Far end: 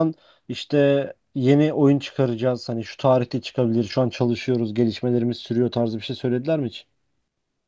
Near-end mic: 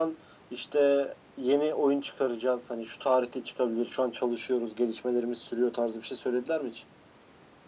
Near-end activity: none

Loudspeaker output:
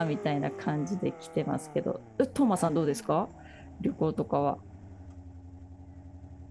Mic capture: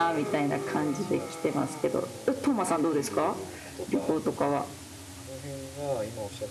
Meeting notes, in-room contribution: present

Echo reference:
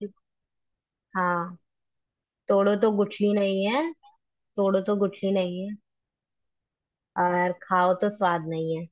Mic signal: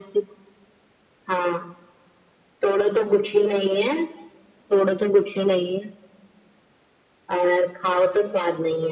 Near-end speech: none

